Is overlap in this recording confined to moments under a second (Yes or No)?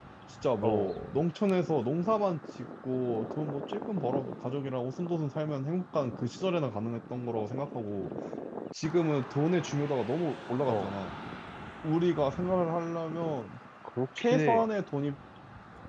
Yes